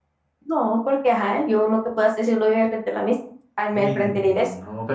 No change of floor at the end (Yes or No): No